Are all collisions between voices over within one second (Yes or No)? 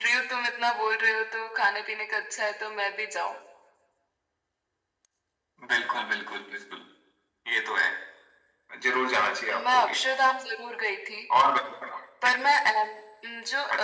Yes